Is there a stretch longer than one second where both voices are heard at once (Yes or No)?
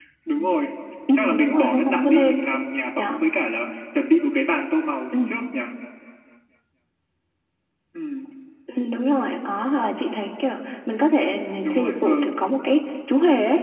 Yes